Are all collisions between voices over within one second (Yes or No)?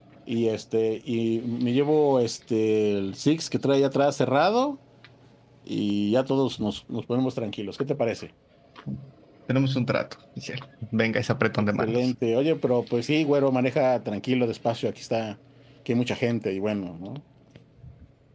Yes